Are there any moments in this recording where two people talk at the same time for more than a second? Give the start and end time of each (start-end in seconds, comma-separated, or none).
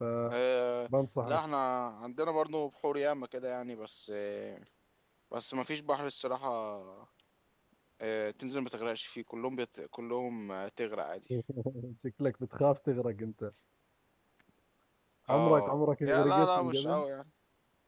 15.3-17.0